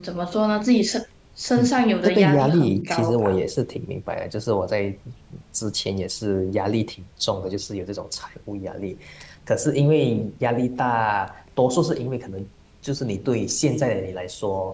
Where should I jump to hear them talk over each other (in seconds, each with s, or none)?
2.0 s